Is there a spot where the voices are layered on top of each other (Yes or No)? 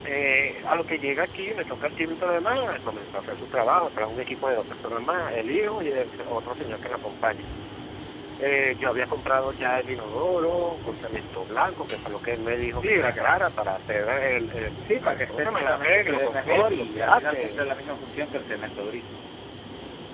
Yes